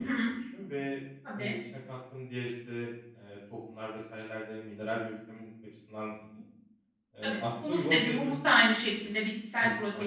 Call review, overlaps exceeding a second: present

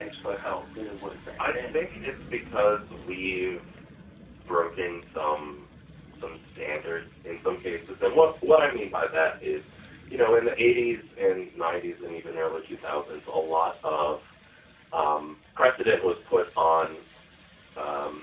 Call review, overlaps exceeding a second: none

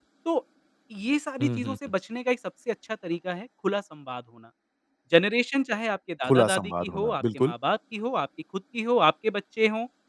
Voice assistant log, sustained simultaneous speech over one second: present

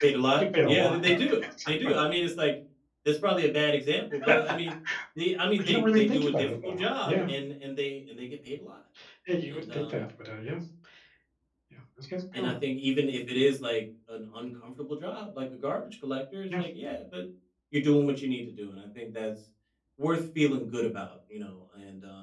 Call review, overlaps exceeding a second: present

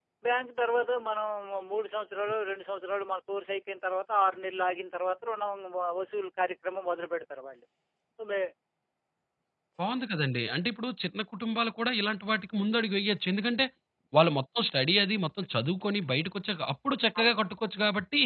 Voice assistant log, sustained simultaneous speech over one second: none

